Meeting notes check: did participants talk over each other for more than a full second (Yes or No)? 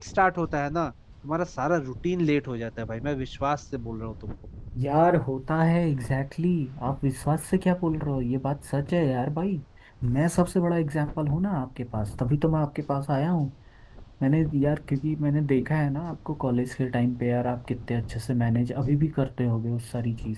No